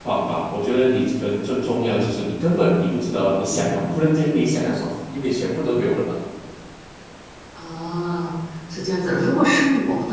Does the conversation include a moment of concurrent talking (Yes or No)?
No